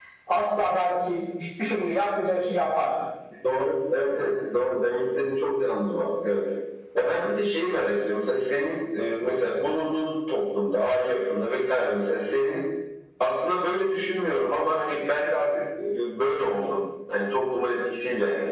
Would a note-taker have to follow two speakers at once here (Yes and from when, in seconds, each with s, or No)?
No